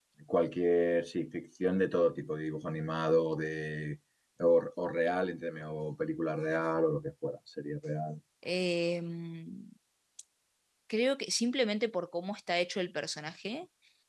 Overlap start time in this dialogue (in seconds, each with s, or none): none